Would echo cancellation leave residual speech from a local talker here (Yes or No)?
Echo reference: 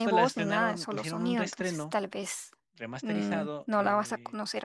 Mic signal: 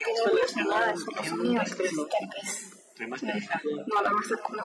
No